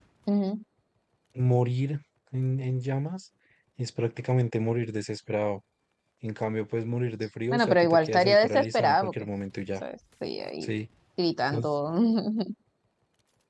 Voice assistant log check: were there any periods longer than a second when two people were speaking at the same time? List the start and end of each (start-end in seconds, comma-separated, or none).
7.5-9.1